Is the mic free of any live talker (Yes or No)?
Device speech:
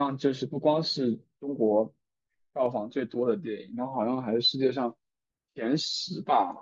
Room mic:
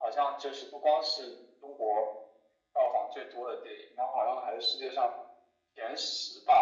Yes